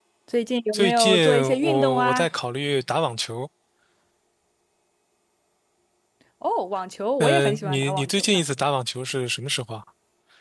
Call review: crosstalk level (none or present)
present